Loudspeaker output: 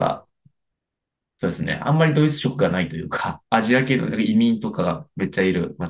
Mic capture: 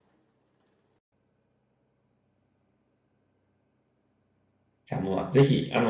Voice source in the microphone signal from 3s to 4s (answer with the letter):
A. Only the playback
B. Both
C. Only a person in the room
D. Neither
D